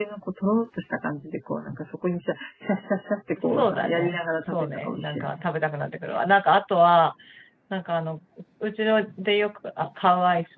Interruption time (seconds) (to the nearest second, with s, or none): 3 s